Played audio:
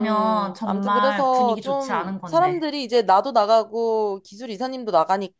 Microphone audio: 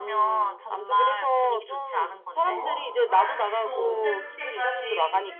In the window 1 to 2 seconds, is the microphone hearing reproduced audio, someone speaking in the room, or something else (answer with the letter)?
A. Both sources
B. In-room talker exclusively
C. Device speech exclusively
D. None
C